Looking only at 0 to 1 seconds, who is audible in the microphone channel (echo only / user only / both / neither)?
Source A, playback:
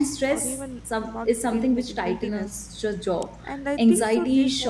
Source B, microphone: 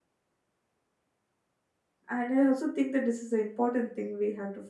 neither